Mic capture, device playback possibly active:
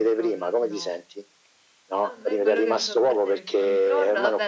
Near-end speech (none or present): present